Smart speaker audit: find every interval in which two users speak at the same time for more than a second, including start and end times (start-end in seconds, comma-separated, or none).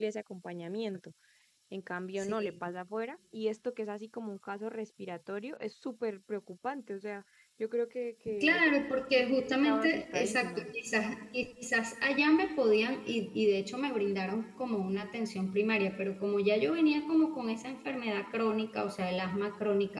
9.2-10.7